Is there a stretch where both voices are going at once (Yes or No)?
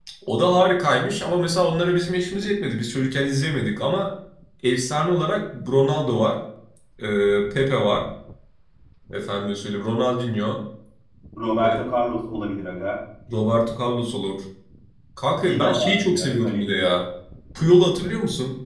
Yes